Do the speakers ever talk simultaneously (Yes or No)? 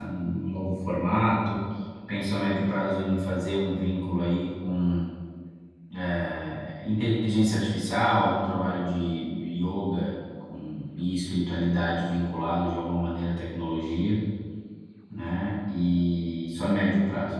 No